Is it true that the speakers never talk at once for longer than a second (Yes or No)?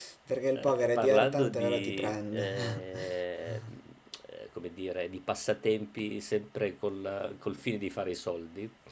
No